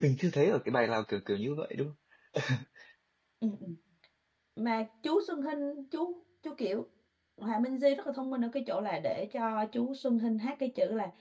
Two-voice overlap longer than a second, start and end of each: none

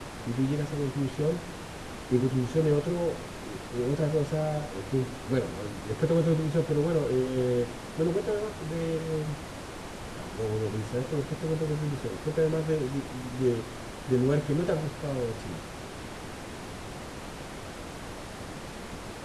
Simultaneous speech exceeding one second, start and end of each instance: none

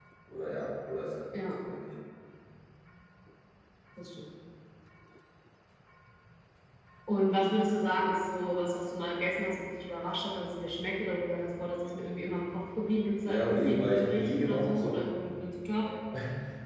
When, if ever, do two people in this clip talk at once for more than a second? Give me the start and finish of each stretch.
13.2-15.0

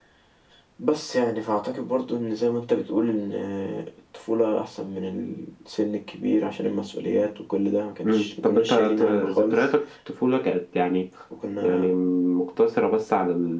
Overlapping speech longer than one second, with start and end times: 8.0-9.6

